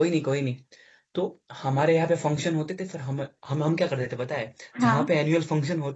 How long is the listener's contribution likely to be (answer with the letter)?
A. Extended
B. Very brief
B